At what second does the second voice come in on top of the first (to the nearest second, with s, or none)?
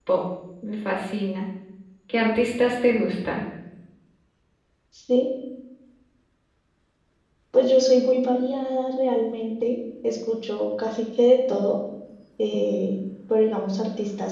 none